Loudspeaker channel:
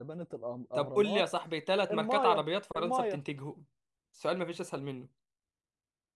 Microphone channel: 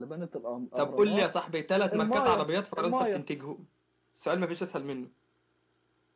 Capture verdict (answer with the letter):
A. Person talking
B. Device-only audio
B